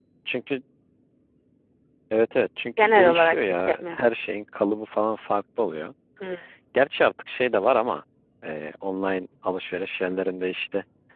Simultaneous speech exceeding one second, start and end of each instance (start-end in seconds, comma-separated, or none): 2.8-4.0